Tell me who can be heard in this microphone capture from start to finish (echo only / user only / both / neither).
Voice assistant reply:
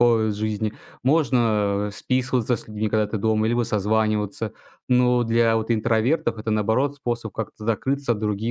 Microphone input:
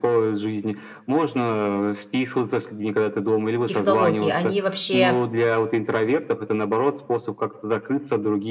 both